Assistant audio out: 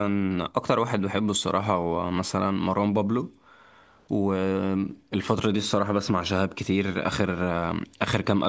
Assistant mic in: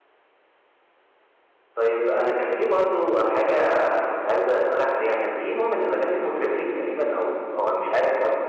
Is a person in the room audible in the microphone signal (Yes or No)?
Yes